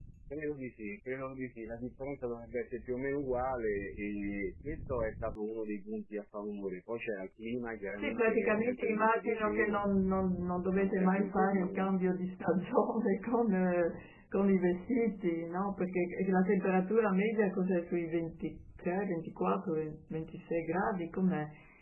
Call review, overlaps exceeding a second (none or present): present